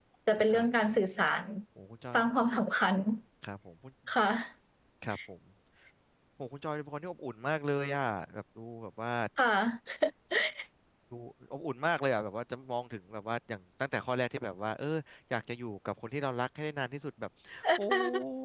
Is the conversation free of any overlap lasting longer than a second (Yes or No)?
Yes